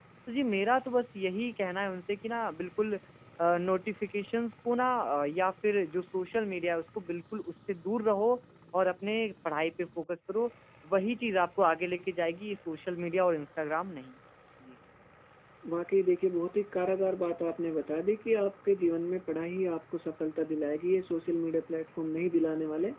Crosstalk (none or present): none